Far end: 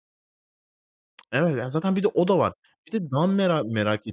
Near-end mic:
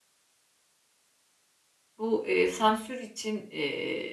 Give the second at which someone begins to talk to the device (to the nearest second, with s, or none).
2 s